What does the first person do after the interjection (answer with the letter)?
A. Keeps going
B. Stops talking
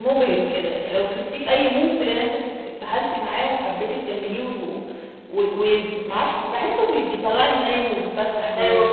B